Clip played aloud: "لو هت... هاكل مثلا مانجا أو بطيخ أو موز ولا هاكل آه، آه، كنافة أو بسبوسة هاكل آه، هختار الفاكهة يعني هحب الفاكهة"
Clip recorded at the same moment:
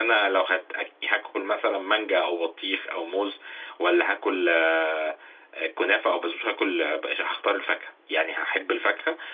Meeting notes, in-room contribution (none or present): none